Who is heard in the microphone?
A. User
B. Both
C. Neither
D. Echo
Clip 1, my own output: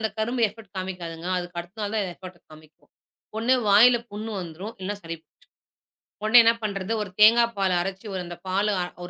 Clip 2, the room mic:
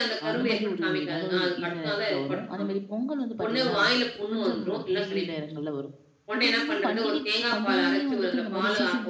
B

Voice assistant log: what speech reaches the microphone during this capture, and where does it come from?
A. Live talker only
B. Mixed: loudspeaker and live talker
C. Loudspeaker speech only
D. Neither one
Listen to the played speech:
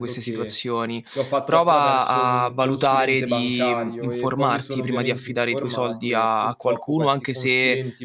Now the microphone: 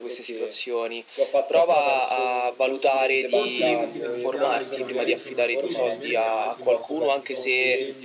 B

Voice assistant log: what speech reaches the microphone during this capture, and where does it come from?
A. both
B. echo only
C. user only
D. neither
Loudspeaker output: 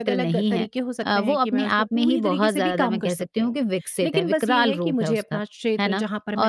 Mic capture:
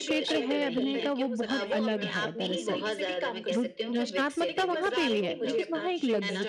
A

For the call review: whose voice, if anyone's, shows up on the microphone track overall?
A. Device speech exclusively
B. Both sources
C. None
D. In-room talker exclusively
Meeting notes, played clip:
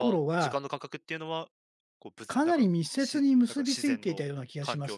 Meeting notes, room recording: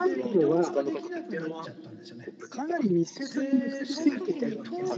B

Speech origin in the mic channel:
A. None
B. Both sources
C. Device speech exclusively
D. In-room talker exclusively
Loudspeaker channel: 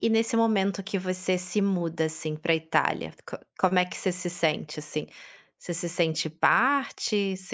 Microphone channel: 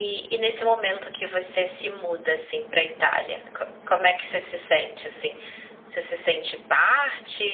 C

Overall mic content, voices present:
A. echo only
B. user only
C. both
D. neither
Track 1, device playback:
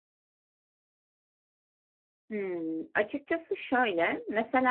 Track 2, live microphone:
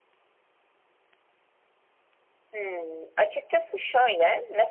A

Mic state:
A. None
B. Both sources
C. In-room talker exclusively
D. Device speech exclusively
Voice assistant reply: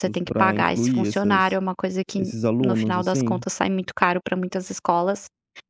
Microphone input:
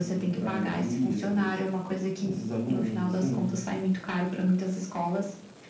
D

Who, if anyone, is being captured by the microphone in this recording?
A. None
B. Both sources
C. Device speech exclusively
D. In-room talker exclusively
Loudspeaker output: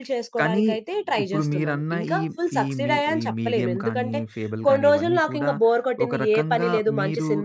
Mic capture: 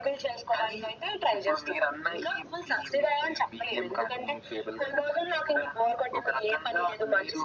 C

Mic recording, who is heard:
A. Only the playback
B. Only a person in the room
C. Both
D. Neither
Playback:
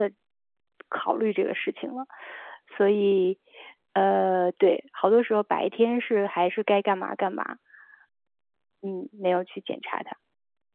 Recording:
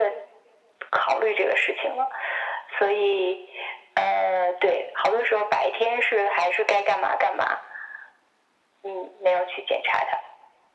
A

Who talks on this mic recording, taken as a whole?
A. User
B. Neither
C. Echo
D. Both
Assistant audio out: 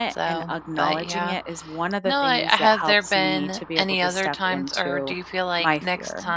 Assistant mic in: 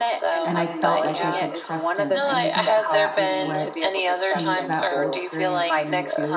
D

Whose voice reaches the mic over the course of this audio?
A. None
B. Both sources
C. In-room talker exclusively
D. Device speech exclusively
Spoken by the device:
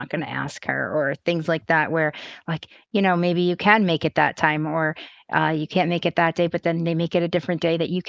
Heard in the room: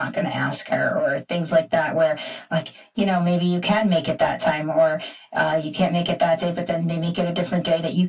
D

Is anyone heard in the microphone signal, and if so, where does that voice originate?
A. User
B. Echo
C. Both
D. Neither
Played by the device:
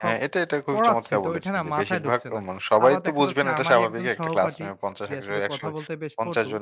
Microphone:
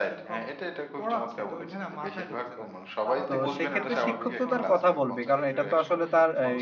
C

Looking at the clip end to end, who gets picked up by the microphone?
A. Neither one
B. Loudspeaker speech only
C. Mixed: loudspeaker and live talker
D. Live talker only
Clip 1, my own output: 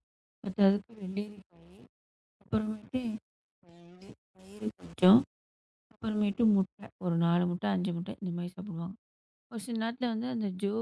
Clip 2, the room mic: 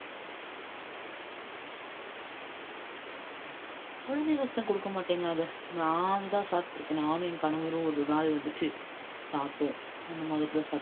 D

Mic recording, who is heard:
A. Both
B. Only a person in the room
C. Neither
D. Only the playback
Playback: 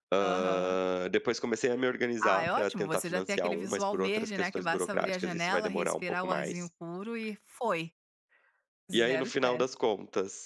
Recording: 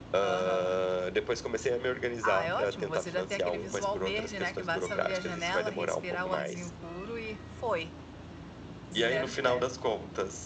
D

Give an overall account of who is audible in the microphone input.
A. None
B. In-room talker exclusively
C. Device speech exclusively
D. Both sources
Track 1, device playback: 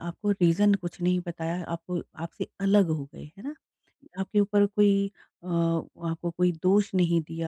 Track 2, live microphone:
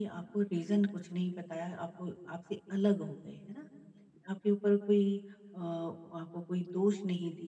C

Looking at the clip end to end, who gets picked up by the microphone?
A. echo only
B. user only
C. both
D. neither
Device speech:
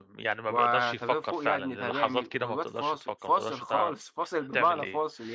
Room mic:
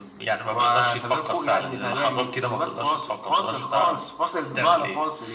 A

